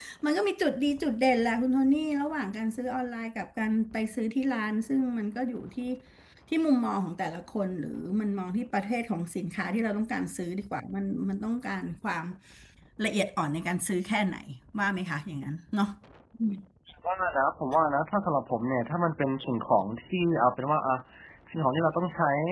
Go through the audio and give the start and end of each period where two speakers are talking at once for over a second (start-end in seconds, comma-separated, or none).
none